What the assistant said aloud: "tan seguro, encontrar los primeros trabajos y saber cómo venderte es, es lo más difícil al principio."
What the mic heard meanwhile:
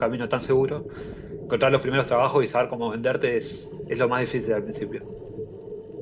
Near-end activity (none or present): none